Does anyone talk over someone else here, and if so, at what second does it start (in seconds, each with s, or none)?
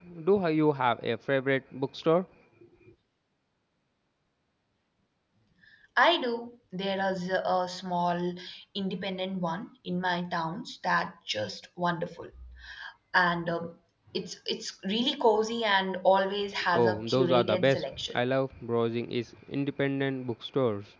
16.7 s